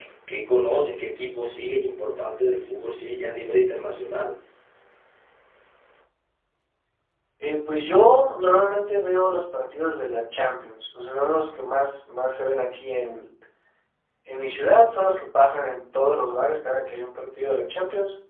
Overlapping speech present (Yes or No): No